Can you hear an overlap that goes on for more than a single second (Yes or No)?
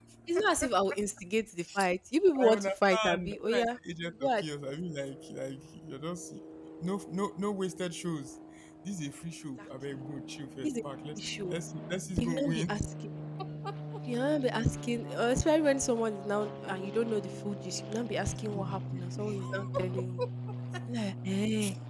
Yes